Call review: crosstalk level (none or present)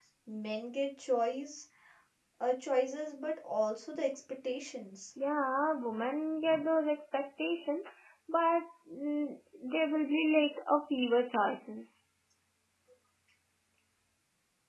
none